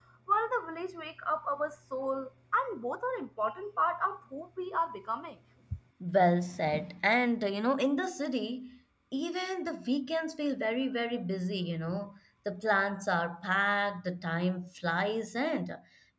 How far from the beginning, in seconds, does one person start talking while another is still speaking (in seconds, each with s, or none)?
none